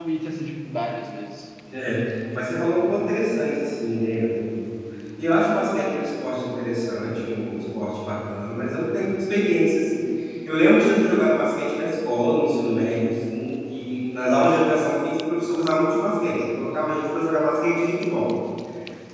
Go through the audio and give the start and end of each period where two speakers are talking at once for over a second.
none

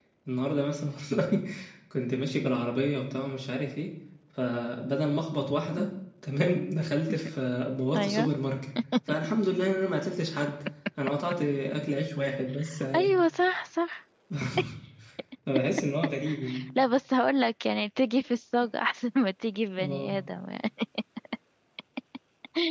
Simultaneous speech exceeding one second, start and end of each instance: none

